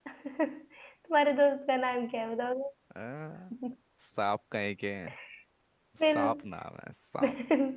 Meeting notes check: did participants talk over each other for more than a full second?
No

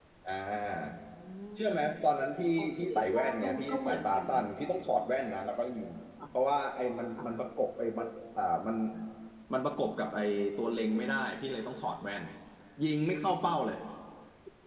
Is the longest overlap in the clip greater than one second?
Yes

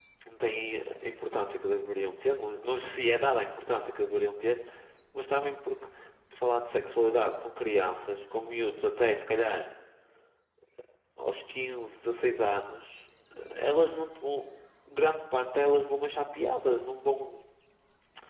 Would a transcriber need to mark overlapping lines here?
No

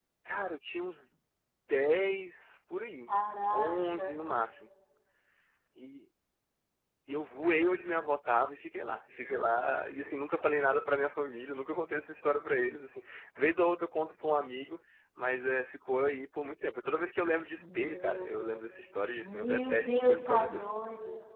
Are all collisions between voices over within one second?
No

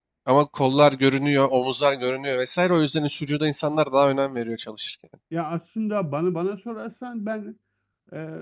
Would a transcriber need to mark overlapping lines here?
No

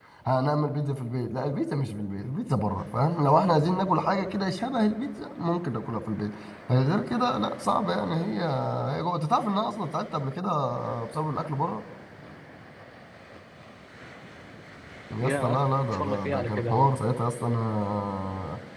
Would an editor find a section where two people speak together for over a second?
Yes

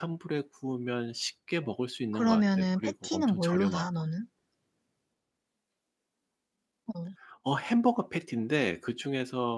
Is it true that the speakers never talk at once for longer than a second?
No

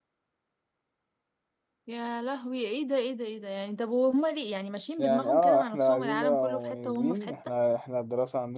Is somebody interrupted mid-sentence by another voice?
Yes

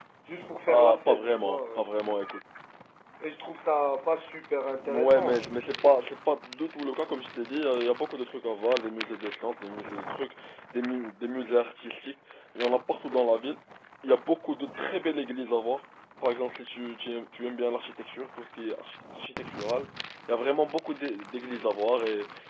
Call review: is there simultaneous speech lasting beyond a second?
Yes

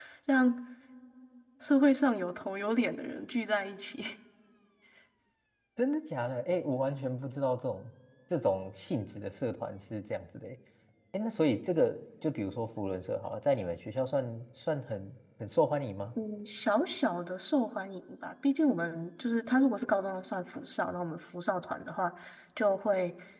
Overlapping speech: No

